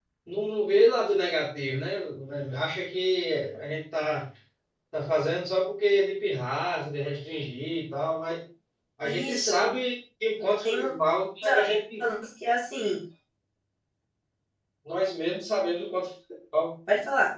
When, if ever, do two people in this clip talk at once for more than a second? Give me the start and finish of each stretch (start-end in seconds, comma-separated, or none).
none